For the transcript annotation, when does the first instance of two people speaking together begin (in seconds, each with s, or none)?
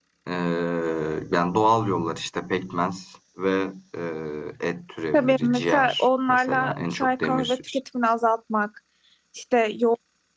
5.1 s